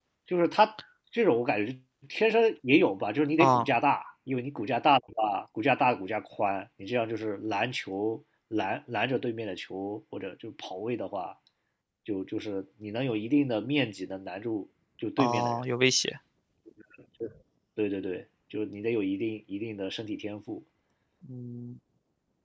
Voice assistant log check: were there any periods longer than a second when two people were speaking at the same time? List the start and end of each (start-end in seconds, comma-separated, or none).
none